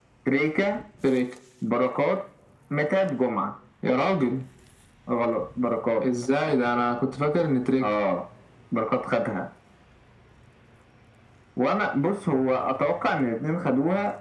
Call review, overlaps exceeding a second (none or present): none